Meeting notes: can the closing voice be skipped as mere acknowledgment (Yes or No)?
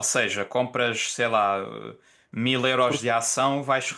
Yes